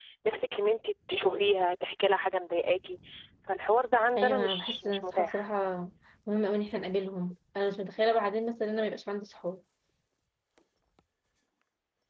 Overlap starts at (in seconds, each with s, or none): 4.2 s